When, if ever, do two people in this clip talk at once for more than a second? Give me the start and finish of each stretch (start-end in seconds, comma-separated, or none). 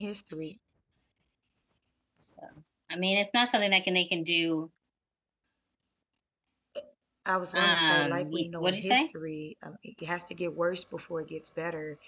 7.5-9.1